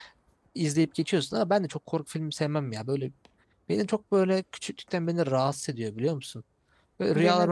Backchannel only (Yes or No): Yes